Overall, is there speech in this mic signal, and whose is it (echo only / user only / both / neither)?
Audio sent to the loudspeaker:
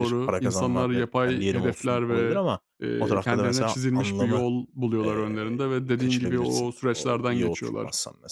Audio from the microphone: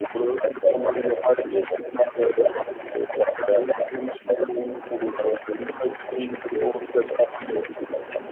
echo only